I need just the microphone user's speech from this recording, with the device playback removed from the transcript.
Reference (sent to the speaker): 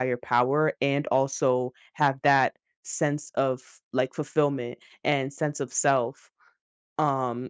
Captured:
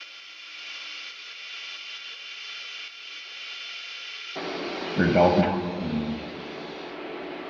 their dogma. You know. Their,

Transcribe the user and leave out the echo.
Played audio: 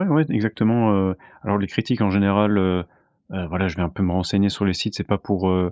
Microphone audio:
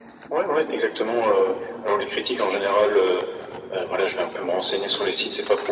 none

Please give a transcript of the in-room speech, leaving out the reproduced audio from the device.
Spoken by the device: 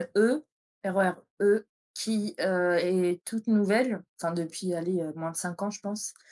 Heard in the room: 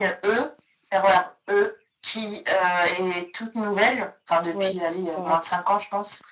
Ouais, faut que ce soit rapide.

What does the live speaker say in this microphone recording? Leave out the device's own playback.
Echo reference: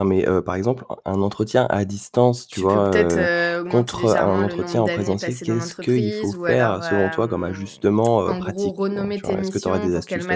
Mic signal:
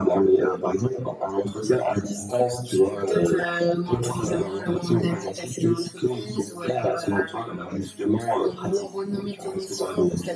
none

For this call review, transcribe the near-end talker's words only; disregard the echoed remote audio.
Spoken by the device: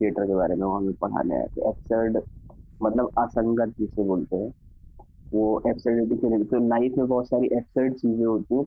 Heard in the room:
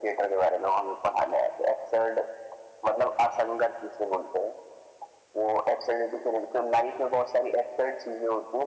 none

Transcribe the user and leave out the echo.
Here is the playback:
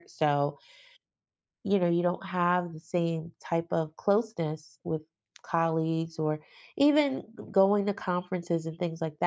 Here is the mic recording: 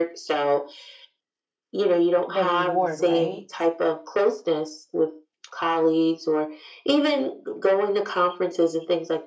the reward, right?

